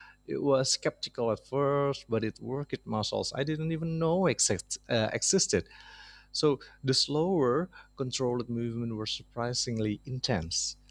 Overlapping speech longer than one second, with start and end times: none

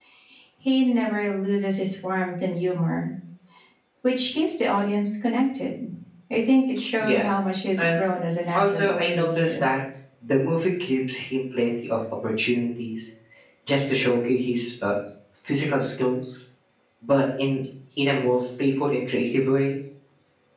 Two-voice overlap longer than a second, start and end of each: 8.5-9.8

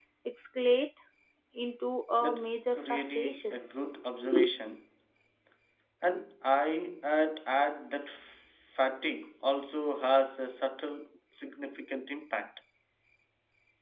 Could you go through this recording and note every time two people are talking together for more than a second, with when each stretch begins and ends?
2.2-3.6

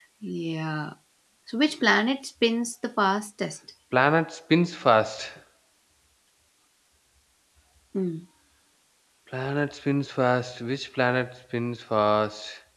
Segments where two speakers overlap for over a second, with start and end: none

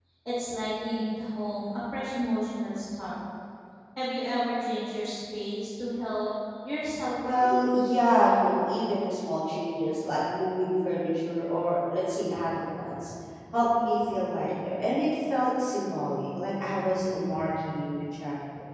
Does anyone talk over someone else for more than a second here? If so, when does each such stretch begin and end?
none

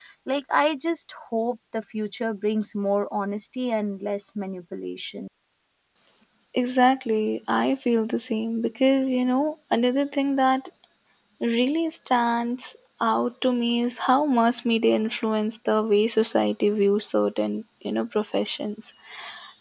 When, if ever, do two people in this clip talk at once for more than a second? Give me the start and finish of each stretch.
none

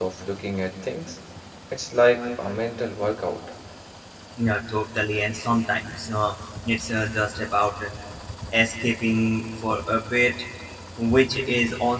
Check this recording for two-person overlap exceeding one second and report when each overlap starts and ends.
none

